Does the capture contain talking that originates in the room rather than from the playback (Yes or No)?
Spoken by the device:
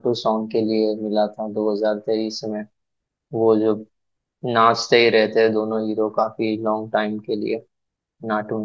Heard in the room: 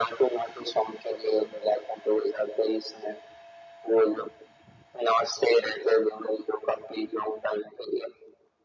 No